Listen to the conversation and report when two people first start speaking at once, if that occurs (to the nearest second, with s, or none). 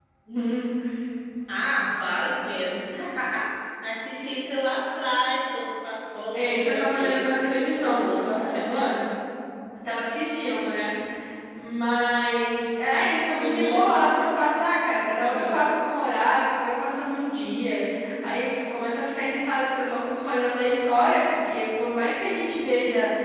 6 s